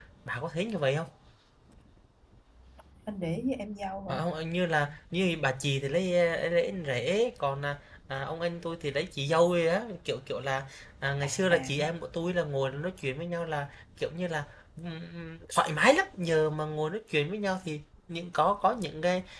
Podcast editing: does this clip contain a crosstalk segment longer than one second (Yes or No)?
No